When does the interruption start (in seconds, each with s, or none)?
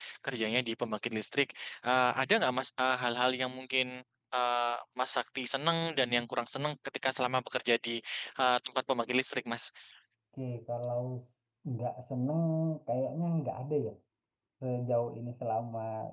none